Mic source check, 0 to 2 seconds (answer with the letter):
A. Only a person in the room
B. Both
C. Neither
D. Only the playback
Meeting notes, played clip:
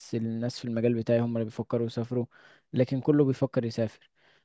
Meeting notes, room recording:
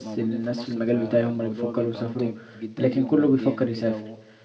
B